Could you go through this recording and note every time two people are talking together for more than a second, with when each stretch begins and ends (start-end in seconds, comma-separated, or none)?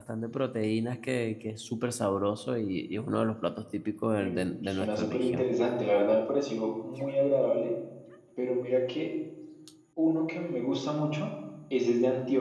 4.2-5.4